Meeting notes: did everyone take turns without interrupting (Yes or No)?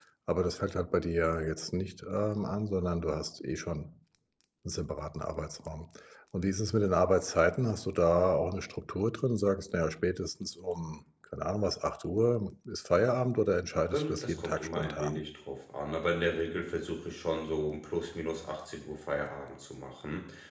No